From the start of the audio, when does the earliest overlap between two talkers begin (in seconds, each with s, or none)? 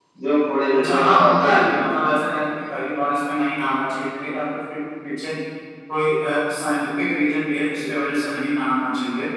0.8 s